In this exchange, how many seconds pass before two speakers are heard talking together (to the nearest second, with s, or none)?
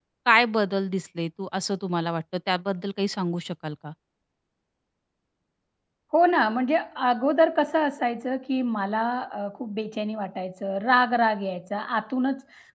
none